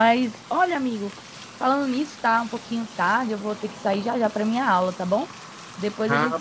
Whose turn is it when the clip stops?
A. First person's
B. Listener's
B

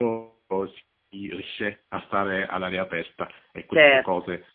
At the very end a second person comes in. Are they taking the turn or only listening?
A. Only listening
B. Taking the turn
A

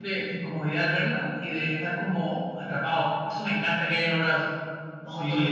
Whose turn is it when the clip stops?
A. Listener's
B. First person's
A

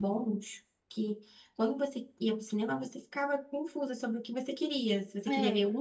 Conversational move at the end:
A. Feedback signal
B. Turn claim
A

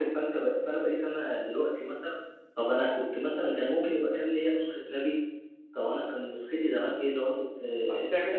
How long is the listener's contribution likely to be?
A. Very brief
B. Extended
B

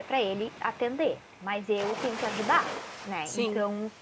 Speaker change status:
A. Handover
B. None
B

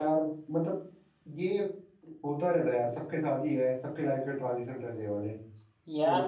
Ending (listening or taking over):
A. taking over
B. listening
A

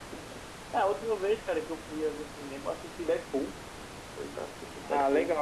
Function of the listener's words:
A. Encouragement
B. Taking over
B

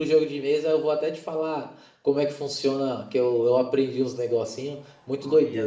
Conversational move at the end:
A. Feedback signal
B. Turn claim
B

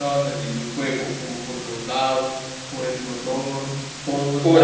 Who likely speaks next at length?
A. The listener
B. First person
A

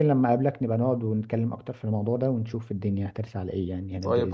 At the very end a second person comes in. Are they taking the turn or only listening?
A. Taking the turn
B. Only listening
A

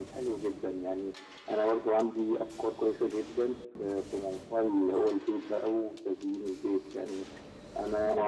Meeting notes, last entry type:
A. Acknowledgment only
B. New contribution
A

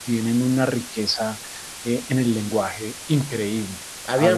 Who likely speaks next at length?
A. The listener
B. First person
A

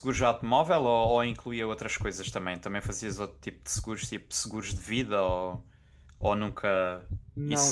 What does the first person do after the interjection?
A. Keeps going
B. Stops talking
B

